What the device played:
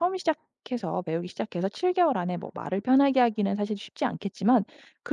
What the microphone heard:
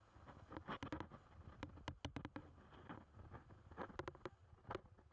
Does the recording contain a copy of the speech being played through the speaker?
No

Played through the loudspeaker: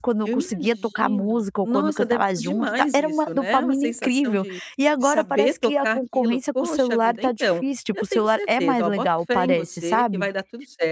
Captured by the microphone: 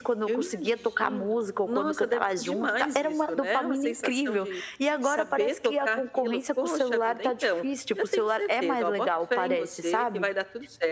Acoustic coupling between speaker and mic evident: Yes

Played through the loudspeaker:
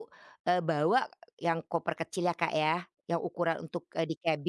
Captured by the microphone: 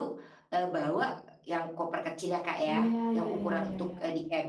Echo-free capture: No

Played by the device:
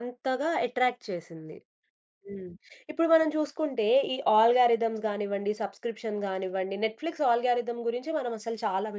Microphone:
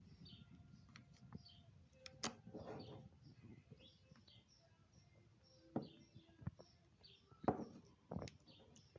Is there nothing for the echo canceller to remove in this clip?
Yes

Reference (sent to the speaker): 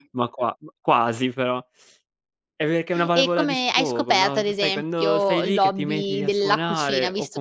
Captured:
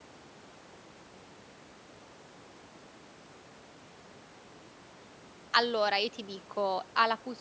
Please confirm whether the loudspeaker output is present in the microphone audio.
No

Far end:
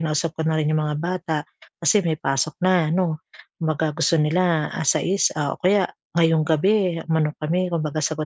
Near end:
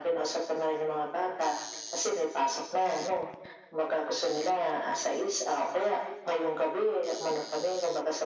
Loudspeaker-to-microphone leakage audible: Yes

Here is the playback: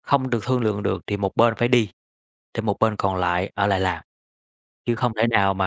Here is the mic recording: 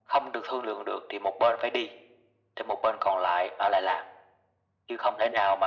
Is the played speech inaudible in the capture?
No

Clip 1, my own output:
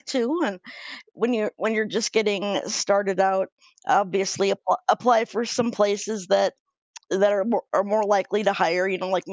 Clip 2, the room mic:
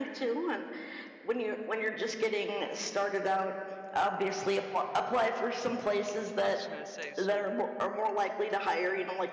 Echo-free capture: No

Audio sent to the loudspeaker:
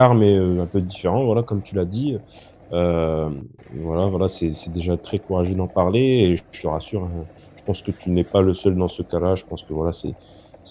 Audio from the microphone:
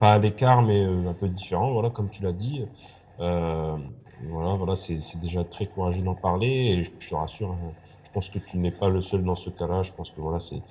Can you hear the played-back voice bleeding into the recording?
Yes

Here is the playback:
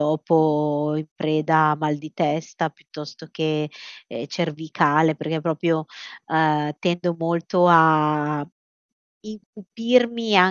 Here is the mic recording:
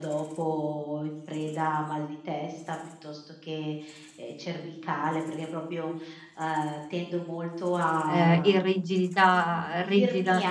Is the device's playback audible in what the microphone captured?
Yes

